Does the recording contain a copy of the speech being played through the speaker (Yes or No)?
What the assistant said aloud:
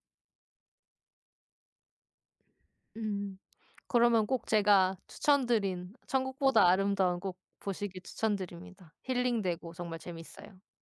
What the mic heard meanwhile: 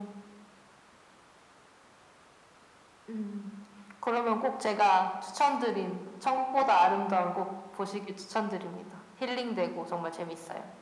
Yes